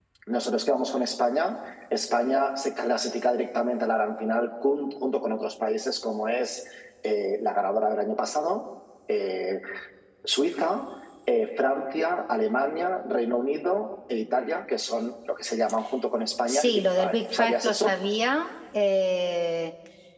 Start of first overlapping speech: 16.5 s

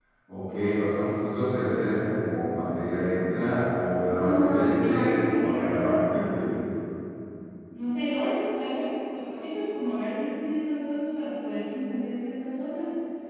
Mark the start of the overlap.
4.2 s

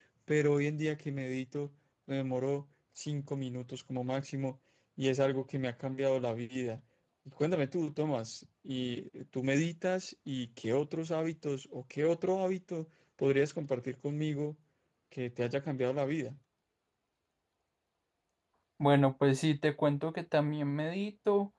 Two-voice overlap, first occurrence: none

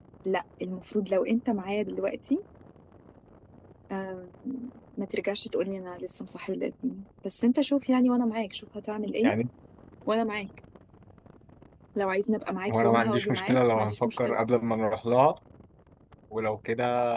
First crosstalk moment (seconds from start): 12.7 s

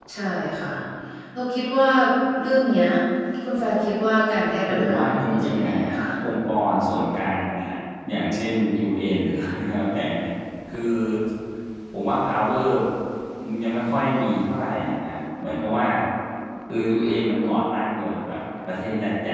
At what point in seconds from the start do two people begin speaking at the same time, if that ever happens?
4.7 s

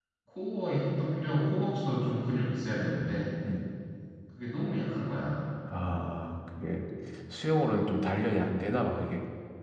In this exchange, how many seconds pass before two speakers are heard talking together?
none

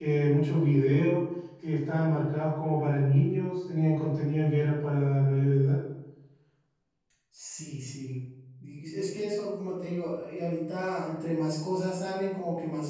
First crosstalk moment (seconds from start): none

